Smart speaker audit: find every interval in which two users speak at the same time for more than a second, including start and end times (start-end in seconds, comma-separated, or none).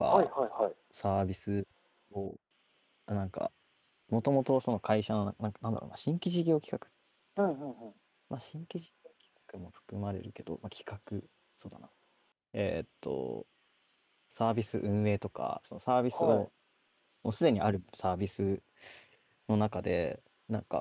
none